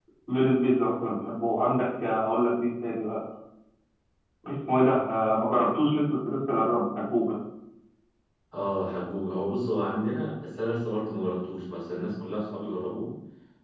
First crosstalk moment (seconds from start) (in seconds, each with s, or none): none